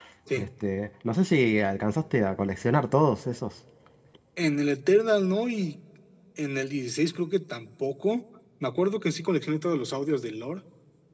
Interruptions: none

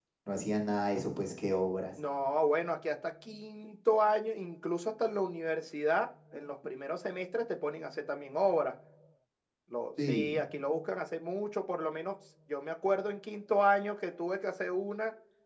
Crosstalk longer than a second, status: none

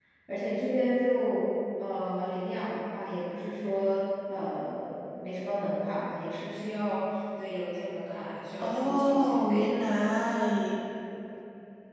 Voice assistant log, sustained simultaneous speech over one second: present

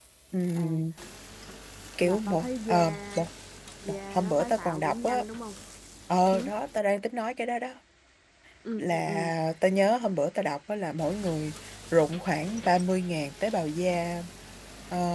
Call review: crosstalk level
present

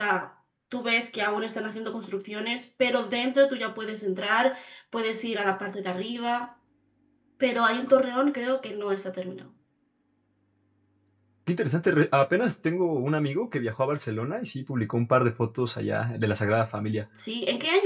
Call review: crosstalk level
none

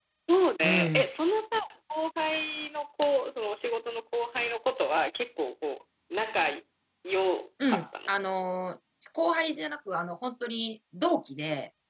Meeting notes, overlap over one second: none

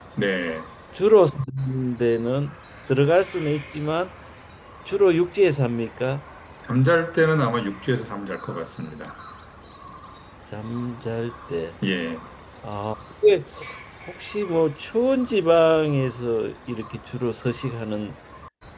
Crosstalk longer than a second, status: none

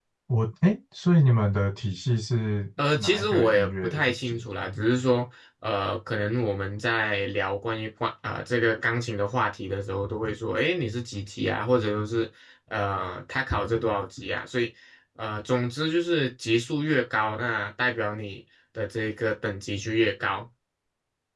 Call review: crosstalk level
present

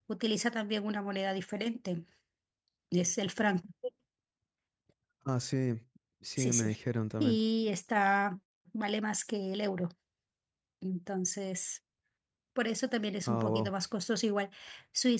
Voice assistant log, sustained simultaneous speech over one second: none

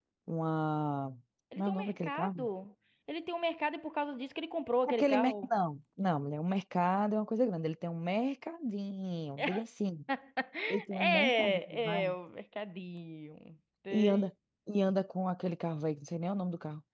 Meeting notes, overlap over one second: present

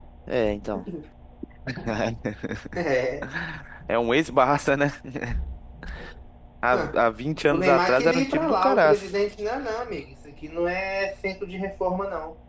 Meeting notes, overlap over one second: present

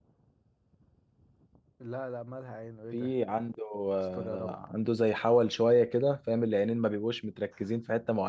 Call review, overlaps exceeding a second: none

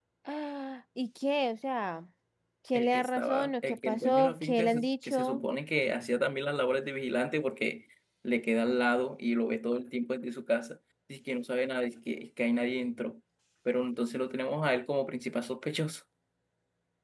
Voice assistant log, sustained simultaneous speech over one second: present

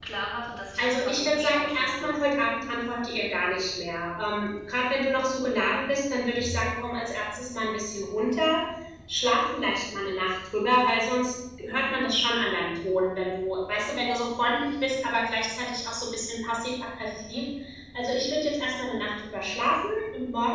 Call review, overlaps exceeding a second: present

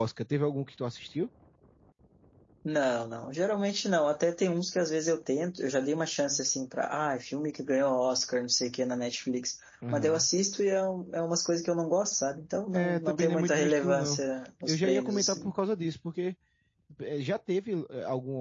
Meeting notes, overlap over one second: present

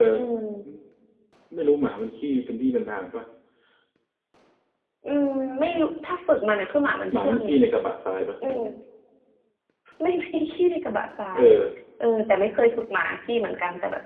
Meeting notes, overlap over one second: none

